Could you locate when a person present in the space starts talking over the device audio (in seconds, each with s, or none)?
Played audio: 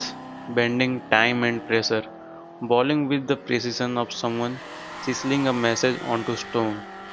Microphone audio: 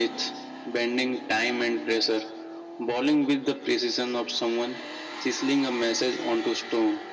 none